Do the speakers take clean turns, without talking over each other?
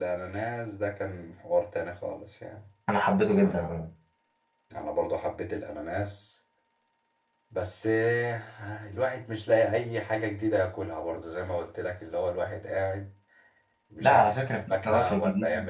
No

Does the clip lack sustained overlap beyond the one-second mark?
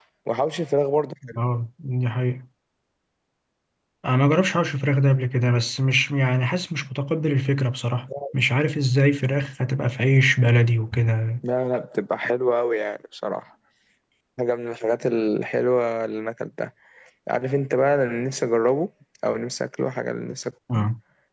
Yes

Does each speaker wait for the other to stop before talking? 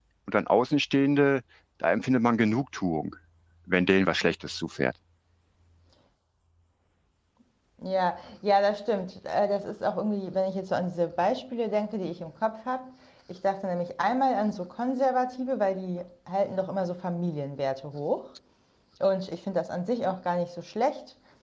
Yes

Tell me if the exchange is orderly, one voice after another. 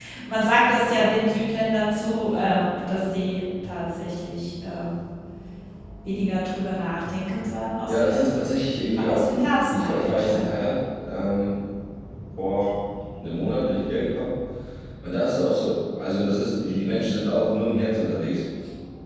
No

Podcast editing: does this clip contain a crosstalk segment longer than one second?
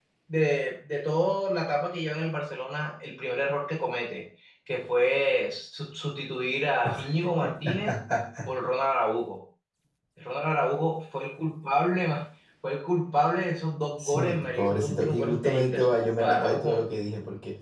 Yes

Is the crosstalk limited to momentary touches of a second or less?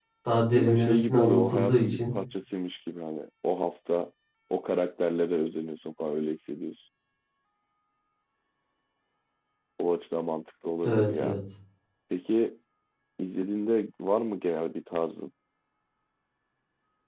No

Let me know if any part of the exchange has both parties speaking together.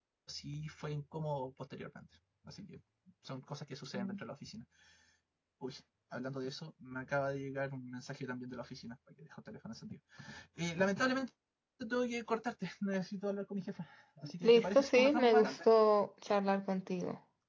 Yes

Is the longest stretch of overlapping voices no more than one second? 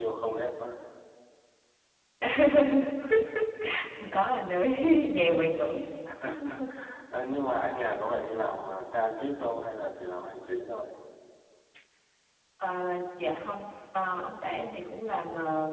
Yes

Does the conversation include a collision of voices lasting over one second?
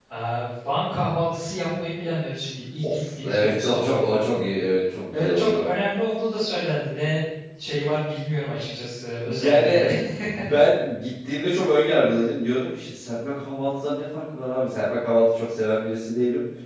Yes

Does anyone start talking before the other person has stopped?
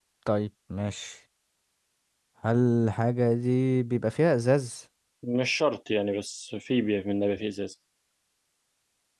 No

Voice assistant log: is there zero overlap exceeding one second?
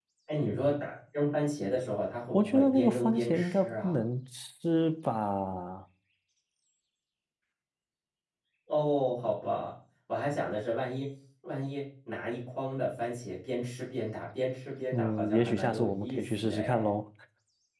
No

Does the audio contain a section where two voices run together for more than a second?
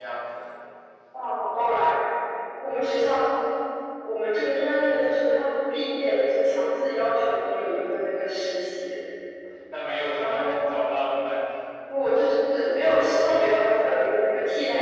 No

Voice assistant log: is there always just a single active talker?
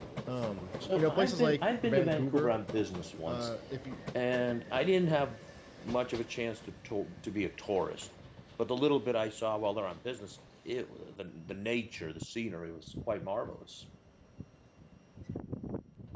No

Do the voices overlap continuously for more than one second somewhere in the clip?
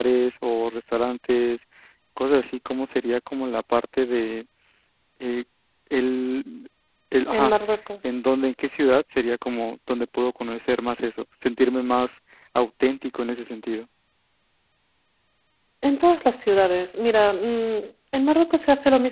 No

